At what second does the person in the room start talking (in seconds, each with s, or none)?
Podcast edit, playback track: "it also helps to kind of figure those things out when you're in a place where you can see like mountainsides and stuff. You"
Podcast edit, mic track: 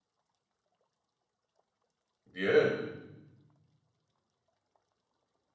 2.3 s